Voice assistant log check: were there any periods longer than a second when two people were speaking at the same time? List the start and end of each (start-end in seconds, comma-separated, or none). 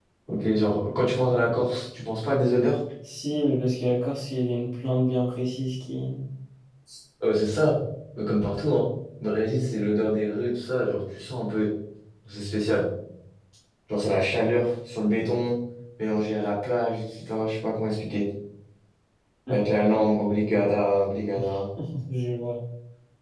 none